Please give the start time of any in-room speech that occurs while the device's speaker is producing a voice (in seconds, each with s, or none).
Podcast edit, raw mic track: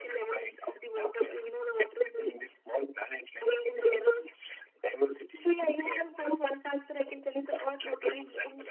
none